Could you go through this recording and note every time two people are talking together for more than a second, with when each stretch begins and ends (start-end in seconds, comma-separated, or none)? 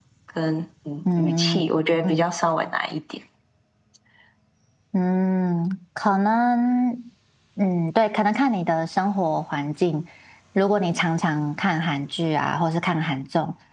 none